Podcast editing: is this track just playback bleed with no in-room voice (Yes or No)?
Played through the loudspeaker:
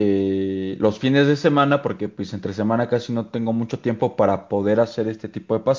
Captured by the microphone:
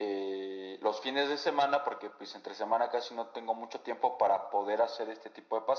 Yes